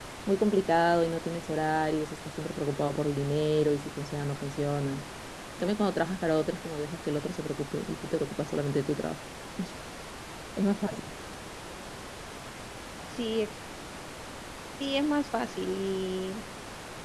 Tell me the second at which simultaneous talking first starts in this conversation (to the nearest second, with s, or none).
none